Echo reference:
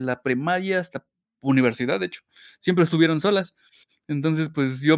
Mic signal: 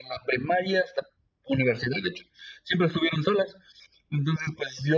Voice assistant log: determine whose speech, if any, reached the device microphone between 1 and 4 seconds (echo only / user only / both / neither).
echo only